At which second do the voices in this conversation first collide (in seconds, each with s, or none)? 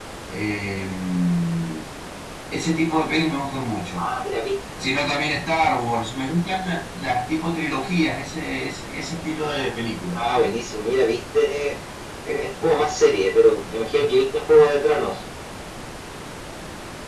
none